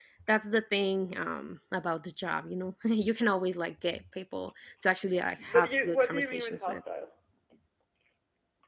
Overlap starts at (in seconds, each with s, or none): 5.5 s